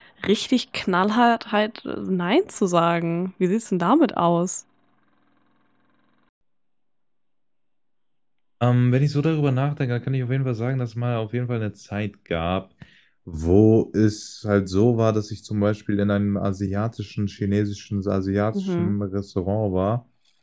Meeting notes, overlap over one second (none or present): none